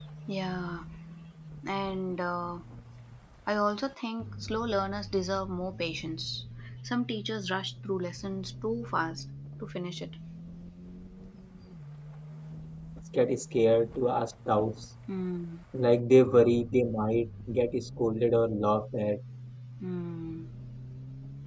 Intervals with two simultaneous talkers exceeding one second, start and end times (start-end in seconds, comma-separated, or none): none